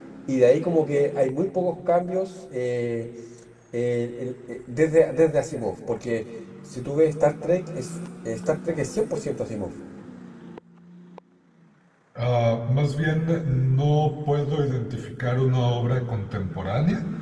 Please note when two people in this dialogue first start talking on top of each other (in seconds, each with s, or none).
none